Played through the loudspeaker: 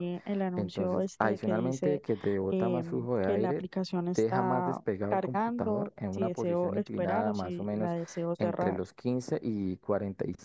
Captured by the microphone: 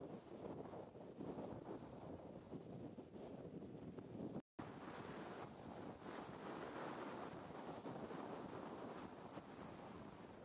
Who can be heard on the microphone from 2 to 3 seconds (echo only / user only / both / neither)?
neither